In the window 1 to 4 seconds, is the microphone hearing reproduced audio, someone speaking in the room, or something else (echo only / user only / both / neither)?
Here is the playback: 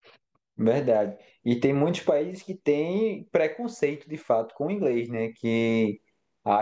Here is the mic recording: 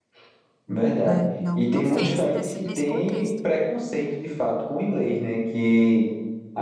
both